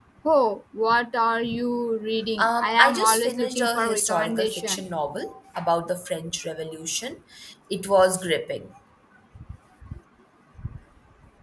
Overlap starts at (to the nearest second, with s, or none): 2 s